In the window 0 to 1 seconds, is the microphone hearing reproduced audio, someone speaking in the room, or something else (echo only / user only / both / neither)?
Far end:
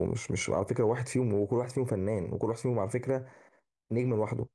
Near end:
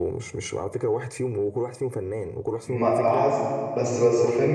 echo only